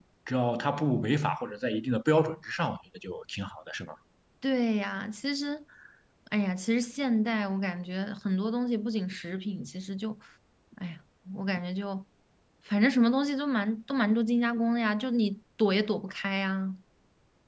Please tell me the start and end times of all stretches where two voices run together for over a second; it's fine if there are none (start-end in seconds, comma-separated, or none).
none